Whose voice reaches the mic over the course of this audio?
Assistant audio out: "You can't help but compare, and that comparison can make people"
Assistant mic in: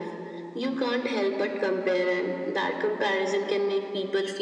echo only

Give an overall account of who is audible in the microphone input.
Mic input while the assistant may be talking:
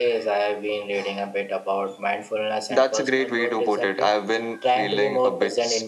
echo only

